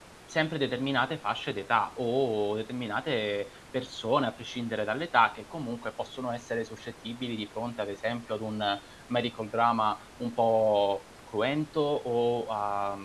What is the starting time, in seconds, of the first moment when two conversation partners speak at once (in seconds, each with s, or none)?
none